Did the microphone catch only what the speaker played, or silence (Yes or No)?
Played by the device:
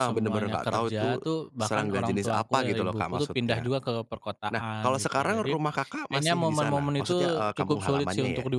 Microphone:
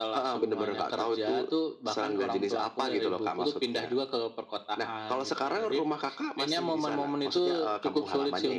Yes